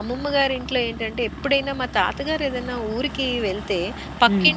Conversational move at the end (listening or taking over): listening